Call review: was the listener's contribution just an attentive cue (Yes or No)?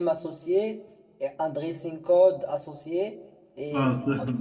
Yes